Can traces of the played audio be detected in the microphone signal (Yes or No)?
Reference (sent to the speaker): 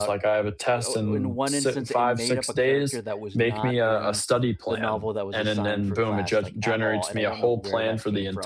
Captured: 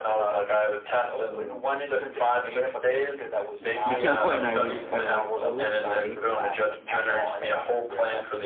Yes